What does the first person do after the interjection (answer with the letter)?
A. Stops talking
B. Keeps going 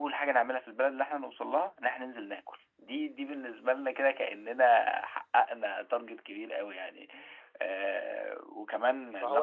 A